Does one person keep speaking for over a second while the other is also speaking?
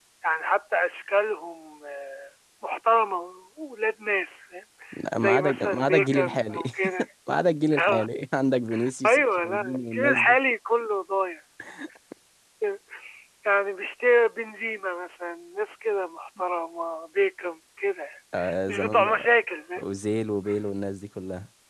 Yes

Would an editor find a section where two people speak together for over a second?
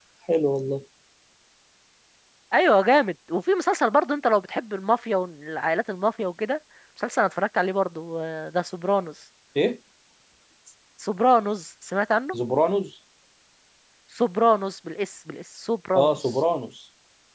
No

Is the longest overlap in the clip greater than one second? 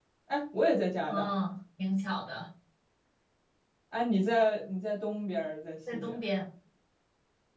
No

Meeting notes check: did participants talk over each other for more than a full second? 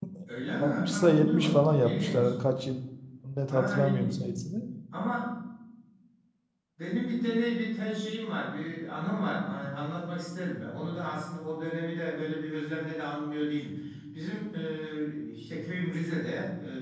Yes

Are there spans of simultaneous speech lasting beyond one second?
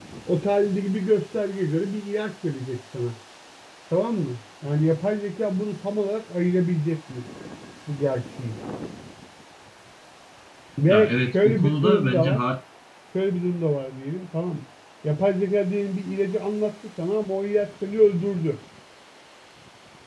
Yes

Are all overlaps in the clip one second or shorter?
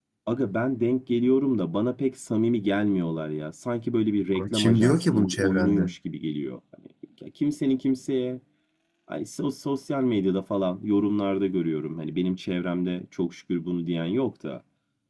No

